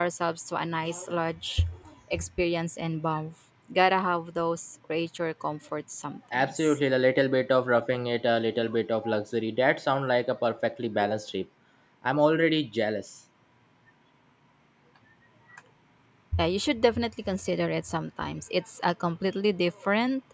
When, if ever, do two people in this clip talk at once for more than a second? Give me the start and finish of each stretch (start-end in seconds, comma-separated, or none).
none